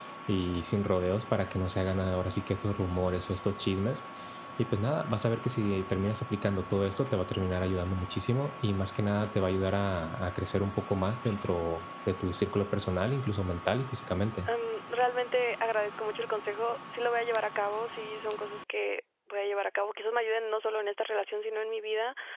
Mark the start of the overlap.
none

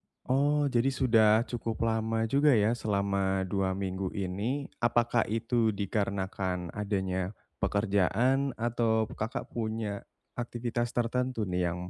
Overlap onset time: none

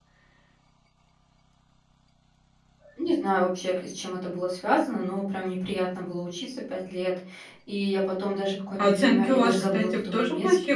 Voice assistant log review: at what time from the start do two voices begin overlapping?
8.8 s

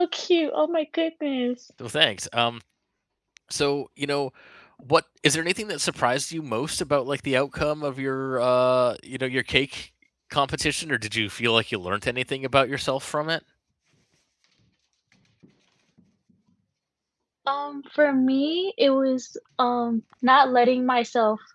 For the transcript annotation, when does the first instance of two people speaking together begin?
none

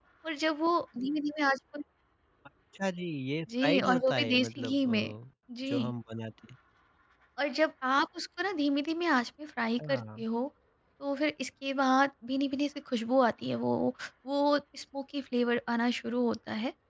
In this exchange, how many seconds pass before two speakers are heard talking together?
3.6 s

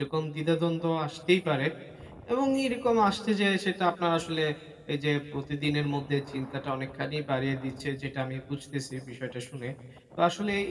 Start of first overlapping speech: none

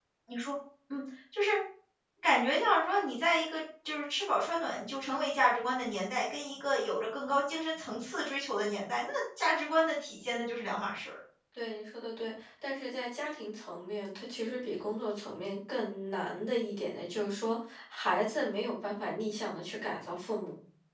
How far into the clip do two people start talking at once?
none

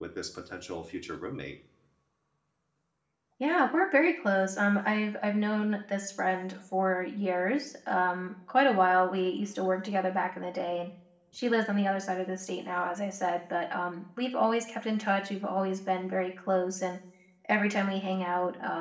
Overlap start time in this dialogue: none

